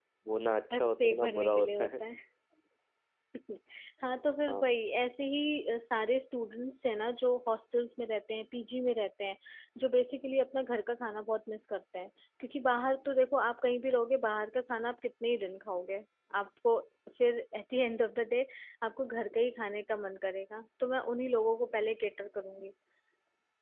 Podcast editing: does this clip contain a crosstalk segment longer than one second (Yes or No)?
Yes